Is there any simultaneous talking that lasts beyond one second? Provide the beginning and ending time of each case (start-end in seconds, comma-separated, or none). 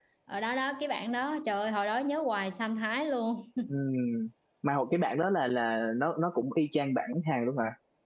none